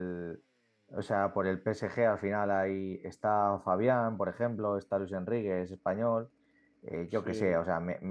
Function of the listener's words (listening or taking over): listening